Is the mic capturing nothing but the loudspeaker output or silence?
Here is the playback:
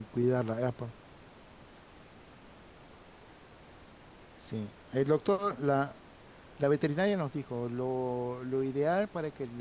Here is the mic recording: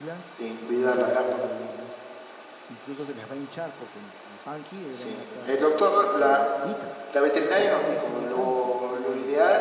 No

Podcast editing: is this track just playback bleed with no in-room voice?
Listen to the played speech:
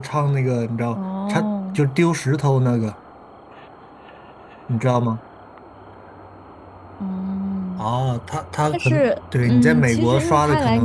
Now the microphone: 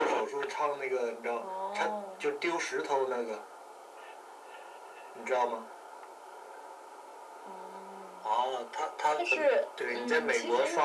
Yes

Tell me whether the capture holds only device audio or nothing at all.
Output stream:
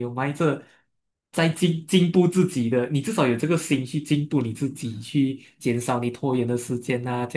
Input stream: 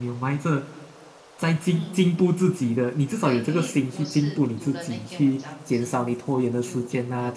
No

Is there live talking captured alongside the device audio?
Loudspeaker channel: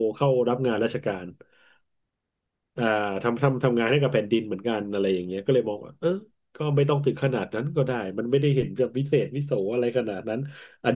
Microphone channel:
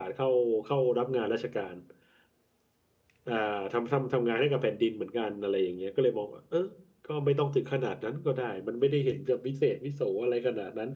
No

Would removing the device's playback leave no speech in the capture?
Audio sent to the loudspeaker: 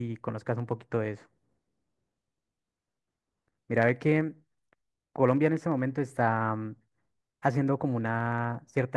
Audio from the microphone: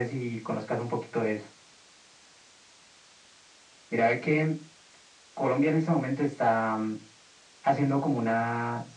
Yes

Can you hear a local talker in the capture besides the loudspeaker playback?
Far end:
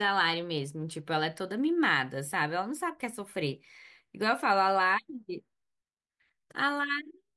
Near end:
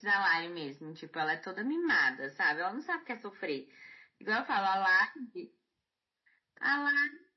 No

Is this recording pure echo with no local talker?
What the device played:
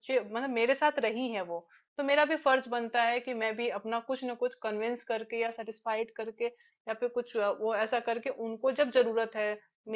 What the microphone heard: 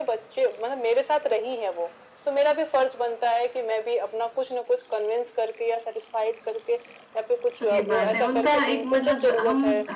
No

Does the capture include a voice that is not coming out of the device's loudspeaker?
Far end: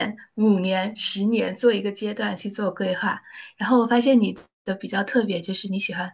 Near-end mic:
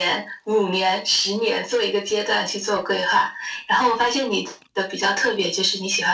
No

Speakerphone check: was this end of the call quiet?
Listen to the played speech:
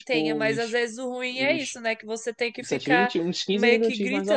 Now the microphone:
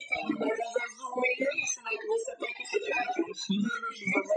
Yes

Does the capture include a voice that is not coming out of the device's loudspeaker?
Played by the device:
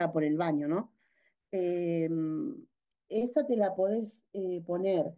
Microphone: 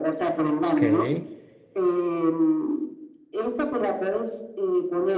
Yes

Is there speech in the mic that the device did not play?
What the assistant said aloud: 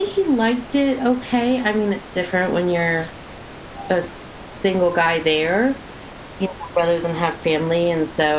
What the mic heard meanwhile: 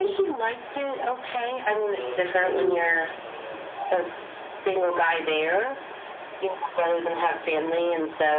Yes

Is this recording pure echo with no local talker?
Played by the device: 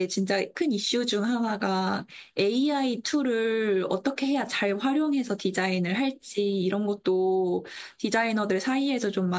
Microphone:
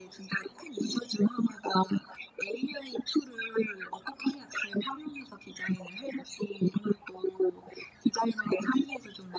Yes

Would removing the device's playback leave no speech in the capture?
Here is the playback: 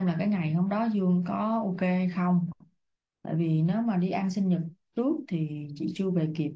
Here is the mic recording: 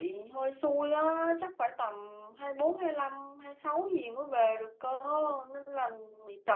No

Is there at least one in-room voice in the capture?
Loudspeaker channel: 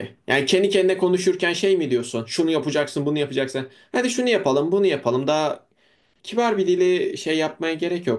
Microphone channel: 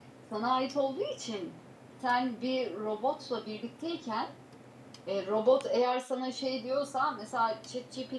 Yes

